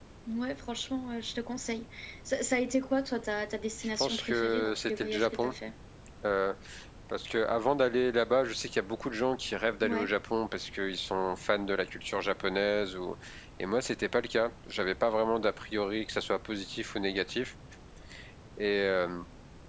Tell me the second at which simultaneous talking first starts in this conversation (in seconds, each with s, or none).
3.8 s